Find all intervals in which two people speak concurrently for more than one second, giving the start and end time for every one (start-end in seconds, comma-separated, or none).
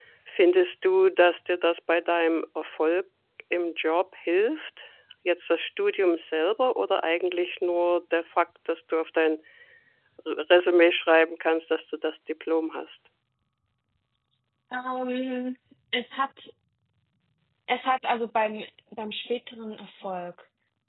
none